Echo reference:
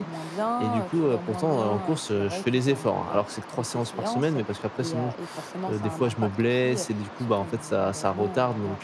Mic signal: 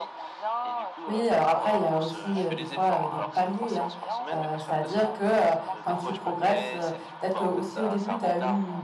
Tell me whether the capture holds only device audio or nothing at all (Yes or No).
No